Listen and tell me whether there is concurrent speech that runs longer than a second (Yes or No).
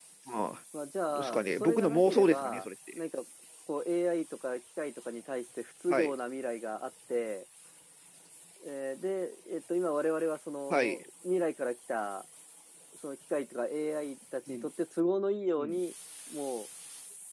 Yes